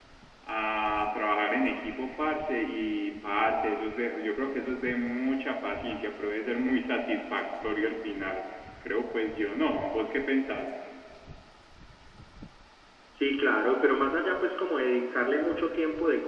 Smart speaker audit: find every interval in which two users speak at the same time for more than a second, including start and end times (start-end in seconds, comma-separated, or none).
none